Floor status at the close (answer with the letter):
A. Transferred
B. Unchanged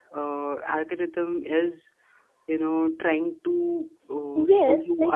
A